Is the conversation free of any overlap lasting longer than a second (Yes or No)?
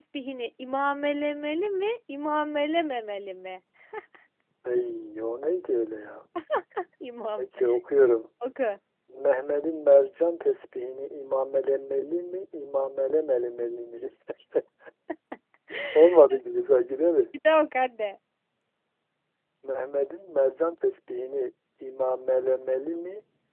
Yes